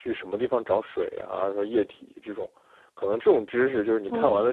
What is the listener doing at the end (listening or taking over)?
listening